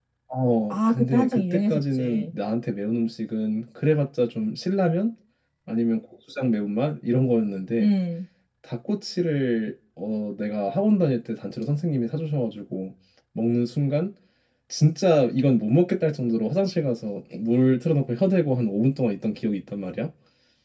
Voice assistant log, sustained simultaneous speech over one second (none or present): present